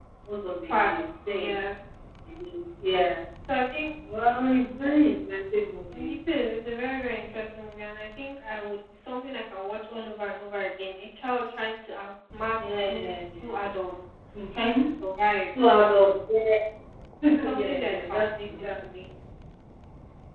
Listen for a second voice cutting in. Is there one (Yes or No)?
Yes